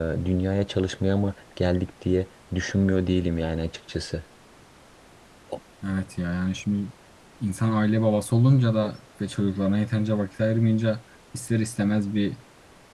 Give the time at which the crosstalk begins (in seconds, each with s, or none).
none